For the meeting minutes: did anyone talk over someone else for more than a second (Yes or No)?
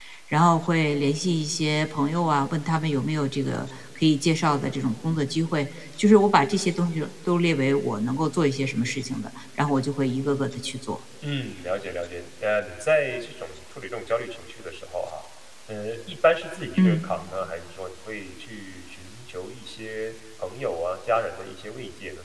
No